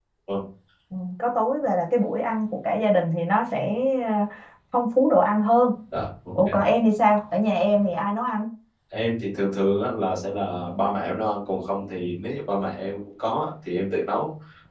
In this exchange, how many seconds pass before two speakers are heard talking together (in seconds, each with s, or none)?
none